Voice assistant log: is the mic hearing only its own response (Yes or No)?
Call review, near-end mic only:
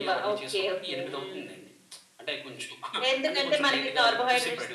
Yes